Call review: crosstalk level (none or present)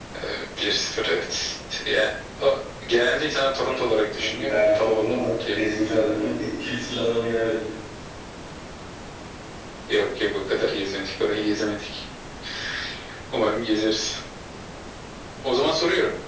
present